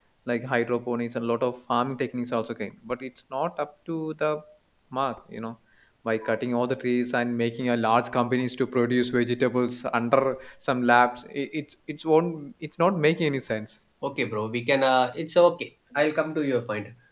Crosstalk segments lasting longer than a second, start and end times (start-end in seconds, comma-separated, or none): none